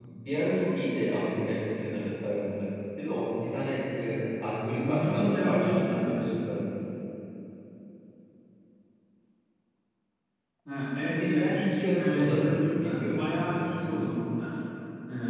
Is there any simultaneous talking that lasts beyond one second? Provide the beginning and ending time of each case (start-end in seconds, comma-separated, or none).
4.8-6.5, 11.0-14.2